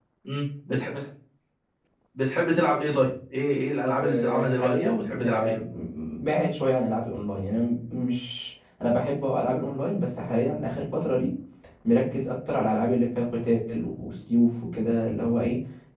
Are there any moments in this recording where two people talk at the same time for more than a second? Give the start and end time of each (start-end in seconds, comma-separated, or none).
4.0-5.5